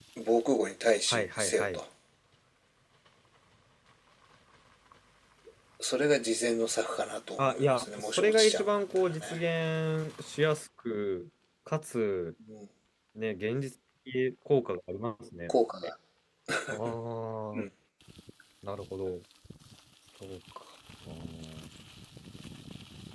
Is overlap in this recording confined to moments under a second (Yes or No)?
No